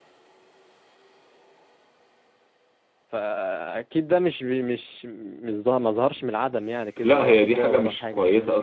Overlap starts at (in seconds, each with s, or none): 7.0 s